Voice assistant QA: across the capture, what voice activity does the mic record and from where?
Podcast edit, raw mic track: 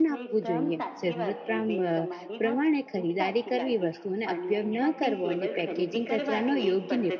both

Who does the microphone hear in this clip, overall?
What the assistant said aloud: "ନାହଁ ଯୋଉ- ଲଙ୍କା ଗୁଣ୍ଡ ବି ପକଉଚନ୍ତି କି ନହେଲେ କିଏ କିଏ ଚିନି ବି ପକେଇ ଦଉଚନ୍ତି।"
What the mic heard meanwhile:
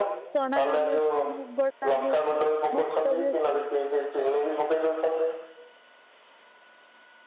both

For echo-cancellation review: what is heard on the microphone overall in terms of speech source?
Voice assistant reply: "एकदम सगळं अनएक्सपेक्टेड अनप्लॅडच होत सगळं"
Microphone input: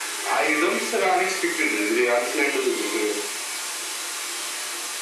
echo only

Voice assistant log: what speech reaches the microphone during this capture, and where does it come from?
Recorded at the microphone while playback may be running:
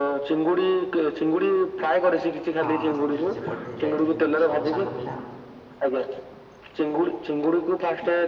both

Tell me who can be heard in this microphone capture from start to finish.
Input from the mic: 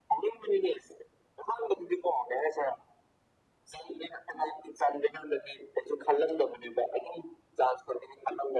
echo only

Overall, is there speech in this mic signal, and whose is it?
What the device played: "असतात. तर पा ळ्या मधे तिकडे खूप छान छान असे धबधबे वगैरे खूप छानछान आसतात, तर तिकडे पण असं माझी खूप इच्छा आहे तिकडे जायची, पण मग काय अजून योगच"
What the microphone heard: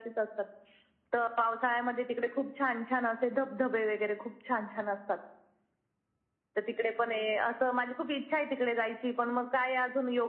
echo only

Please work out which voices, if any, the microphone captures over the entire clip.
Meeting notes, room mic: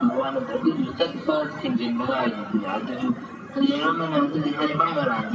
echo only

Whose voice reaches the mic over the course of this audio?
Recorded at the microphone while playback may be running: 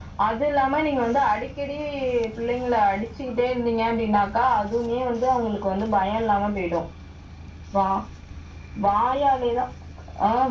echo only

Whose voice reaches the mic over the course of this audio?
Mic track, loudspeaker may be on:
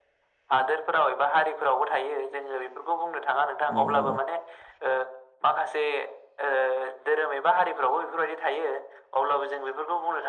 both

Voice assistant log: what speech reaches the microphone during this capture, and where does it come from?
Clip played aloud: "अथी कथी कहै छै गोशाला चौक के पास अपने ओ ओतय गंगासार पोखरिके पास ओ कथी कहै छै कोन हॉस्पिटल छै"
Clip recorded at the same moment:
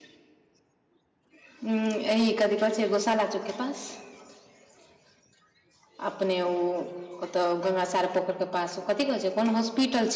echo only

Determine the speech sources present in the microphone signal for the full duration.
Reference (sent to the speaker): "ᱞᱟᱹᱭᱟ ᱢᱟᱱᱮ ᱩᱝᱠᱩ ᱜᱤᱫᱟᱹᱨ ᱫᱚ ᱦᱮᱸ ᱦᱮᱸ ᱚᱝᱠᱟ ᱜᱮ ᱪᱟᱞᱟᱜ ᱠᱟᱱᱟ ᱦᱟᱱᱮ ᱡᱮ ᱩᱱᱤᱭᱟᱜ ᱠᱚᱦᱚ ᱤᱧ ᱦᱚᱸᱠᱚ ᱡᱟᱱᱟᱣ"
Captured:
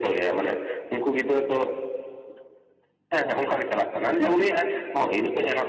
echo only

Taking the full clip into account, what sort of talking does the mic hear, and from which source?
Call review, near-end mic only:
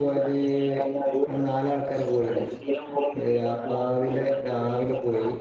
both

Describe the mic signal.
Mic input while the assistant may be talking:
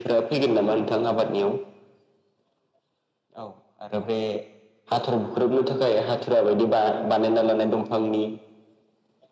echo only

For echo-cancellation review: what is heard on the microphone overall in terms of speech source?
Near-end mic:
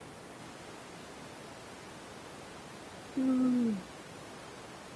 user only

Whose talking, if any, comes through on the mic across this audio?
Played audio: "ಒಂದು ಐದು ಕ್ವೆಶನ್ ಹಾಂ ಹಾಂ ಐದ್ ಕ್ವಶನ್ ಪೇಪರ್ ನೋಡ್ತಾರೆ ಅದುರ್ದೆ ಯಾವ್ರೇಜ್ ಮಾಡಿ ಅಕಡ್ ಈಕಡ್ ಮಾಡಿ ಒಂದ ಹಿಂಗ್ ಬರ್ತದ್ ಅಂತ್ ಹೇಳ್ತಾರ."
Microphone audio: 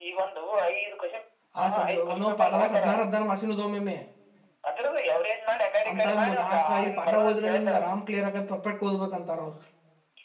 both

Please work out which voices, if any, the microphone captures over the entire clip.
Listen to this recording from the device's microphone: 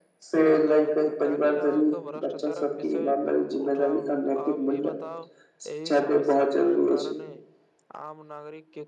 both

